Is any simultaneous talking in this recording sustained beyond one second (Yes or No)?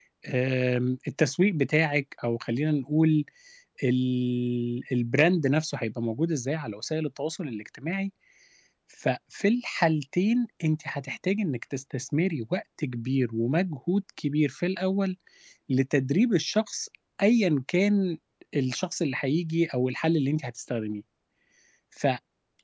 No